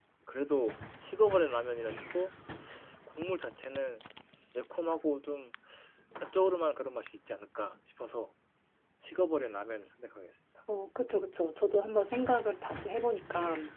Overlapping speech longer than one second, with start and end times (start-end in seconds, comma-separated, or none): none